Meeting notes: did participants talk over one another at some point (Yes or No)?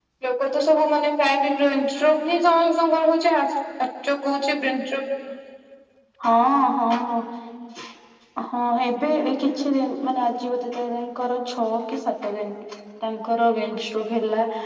No